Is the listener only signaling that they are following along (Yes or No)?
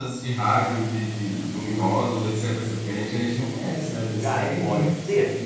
No